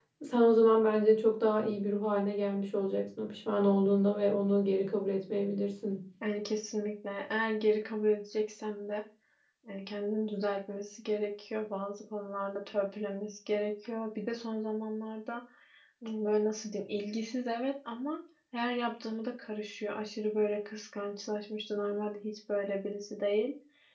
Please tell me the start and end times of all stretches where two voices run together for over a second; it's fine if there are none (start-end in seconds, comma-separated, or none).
none